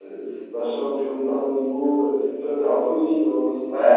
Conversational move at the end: taking over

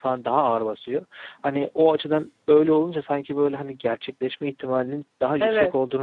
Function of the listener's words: listening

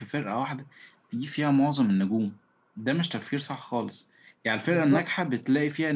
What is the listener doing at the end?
listening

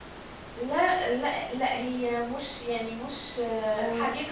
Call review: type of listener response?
listening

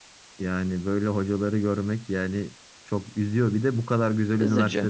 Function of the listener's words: listening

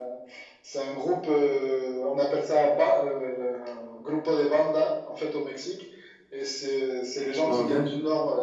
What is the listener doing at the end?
listening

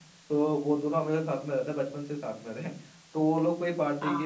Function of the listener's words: listening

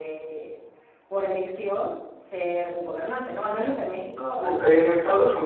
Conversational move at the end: taking over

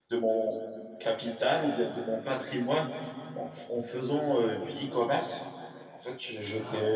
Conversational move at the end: listening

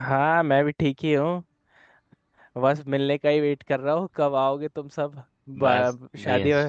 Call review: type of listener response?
taking over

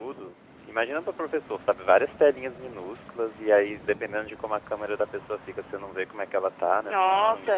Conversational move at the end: taking over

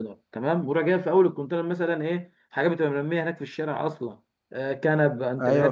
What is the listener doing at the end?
listening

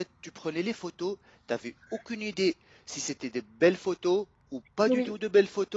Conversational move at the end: listening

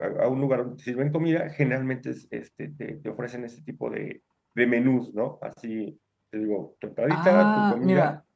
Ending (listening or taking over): taking over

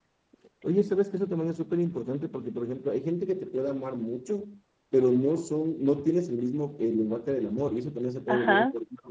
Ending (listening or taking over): taking over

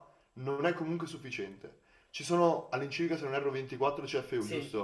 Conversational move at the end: taking over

